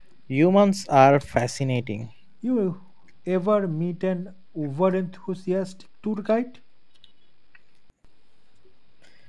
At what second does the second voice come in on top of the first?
none

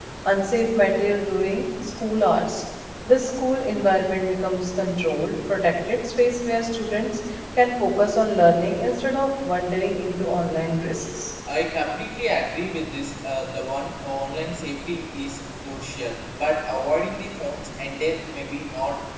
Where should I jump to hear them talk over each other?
none

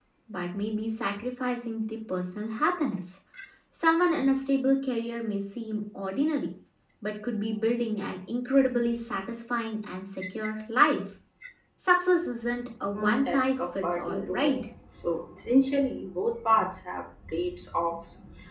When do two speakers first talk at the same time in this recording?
12.9 s

